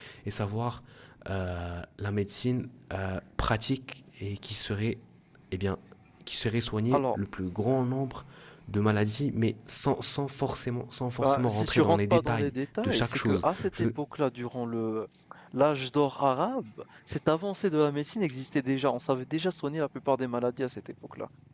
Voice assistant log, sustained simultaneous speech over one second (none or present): present